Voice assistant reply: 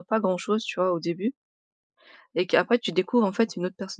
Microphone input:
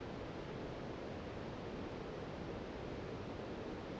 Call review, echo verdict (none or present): none